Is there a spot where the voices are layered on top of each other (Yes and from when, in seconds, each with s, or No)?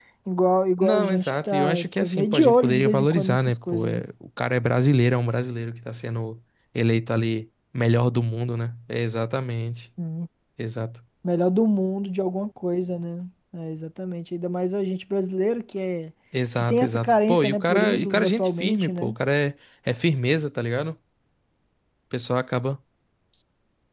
Yes, from 0.8 s